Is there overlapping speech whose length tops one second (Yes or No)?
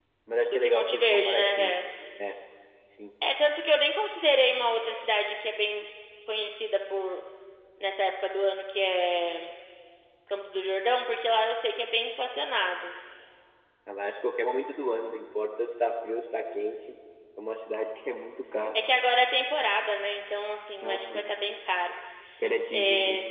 Yes